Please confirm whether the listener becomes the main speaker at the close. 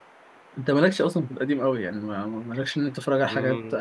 No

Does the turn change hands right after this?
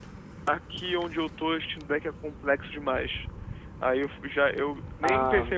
No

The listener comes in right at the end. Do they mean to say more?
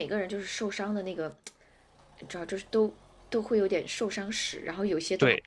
Yes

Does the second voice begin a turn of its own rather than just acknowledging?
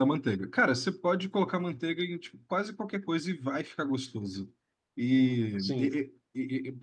No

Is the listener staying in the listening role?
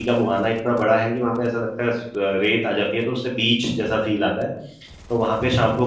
Yes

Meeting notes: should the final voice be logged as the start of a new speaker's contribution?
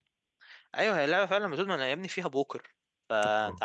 No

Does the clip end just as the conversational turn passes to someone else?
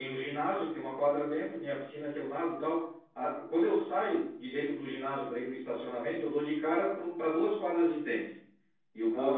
No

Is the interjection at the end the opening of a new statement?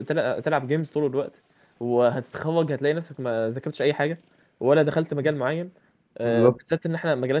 No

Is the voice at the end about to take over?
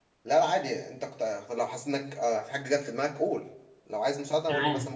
Yes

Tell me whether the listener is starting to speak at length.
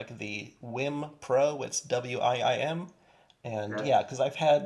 No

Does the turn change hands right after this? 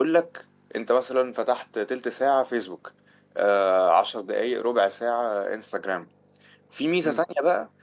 No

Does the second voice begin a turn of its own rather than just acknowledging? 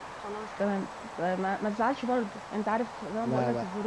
No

